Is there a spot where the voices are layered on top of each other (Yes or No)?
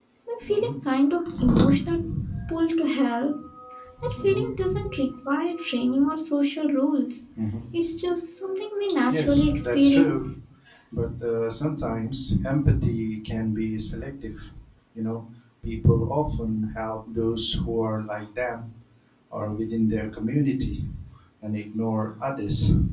Yes